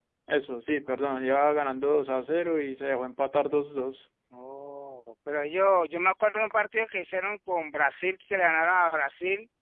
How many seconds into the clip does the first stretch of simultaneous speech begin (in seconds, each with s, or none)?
none